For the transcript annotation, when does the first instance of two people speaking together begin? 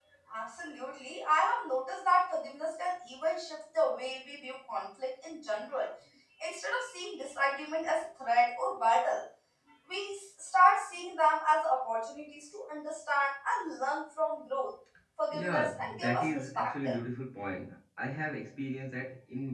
15 s

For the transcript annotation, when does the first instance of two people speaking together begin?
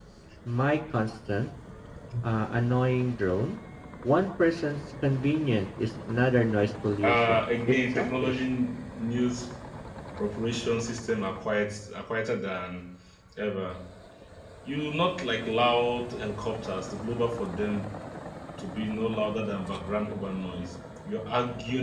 7 s

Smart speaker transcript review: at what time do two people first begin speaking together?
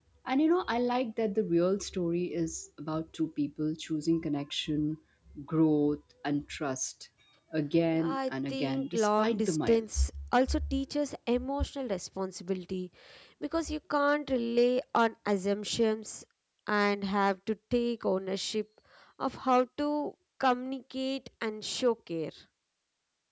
8 s

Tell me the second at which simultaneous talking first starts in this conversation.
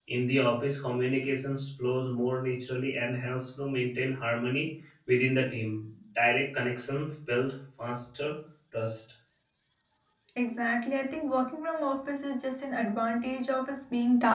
none

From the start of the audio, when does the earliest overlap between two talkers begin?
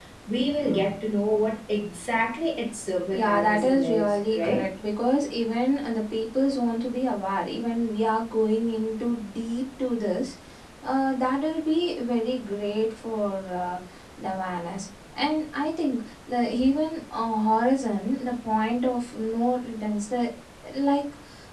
3 s

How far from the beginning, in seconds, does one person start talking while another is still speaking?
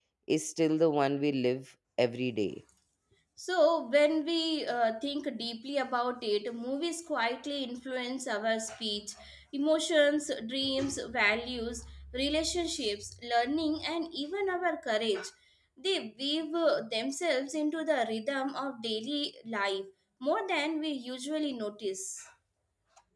none

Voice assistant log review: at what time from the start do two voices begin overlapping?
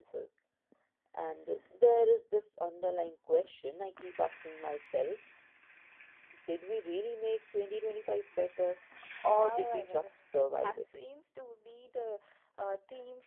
9 s

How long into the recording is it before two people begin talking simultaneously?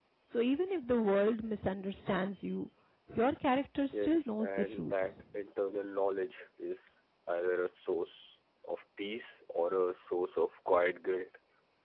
4 s

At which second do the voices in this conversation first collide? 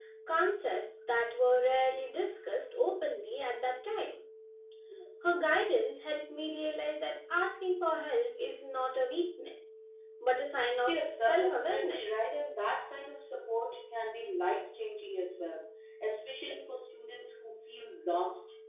11 s

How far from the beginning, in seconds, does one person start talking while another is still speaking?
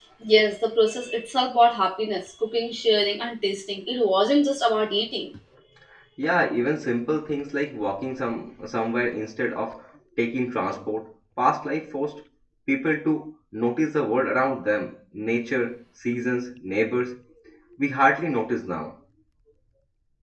none

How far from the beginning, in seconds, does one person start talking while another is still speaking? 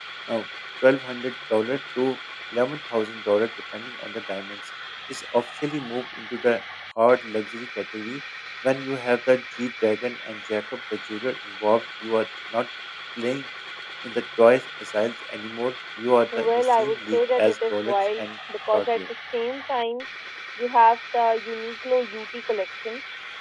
16 s

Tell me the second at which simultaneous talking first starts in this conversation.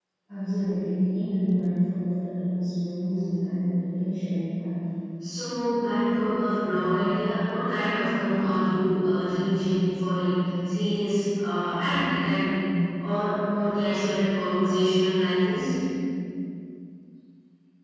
none

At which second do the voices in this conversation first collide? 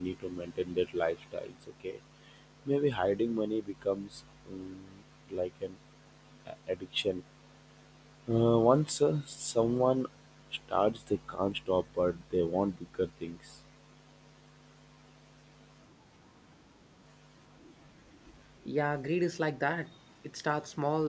none

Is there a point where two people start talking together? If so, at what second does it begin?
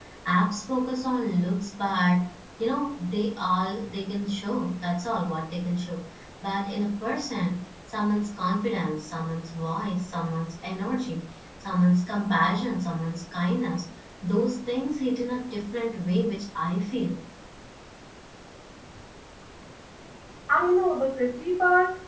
none

